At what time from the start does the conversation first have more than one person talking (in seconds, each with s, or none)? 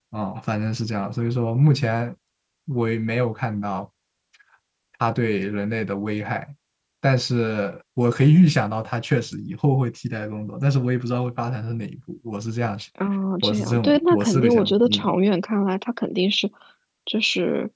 13.4 s